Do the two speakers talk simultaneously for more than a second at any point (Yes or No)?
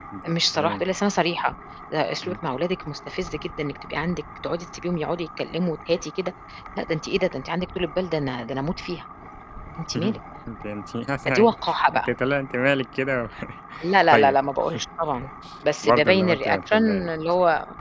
Yes